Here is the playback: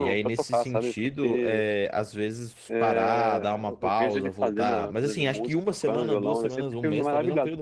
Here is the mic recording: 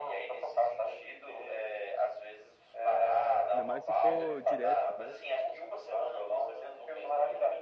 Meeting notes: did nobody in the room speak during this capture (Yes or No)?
No